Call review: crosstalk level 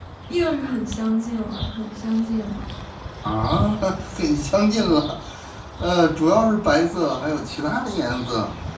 none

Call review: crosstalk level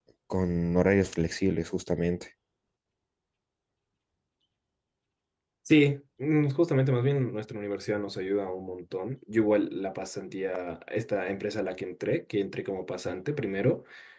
none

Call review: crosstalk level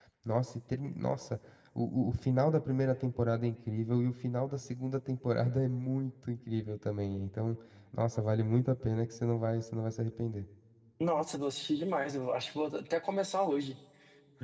none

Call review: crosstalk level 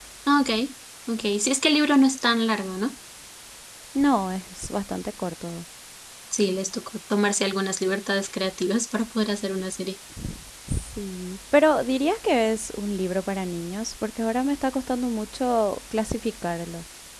none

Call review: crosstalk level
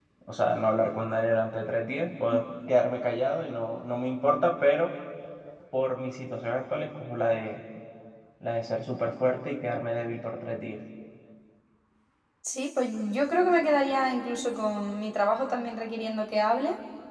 none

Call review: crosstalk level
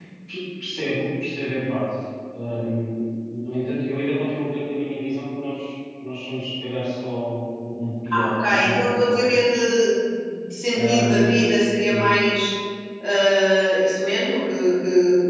present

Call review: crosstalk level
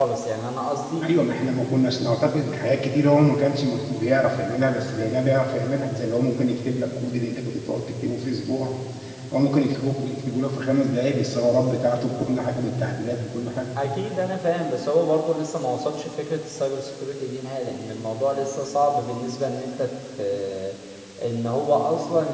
none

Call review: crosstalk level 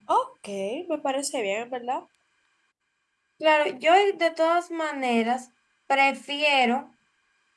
none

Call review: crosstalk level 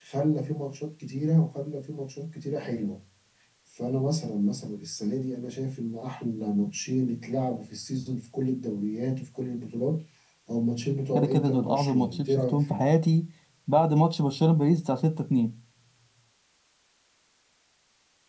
present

